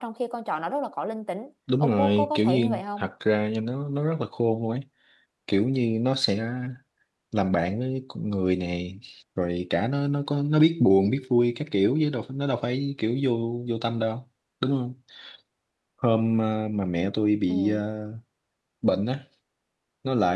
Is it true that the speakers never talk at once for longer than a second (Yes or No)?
No